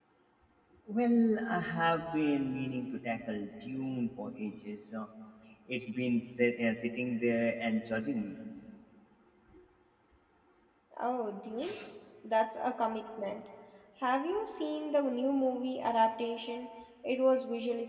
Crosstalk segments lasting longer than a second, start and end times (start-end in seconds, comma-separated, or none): none